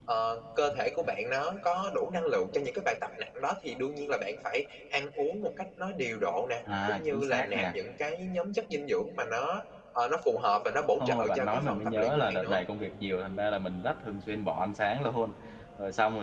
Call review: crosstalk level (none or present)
present